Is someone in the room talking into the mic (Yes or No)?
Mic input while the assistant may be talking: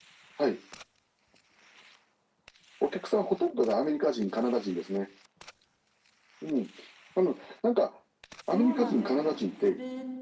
Yes